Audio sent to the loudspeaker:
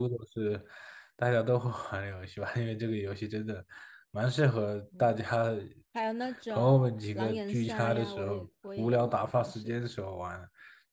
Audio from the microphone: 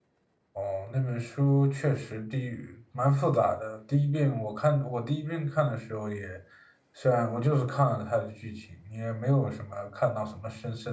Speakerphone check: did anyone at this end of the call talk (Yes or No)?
Yes